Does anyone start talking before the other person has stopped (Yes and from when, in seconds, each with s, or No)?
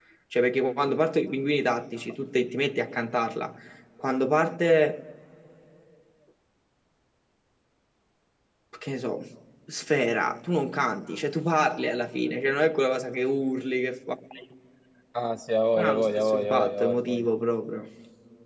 Yes, from 15.8 s